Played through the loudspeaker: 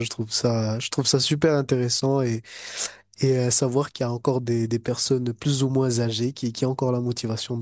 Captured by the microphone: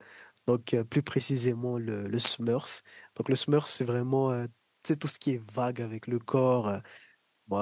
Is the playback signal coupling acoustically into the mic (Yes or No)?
No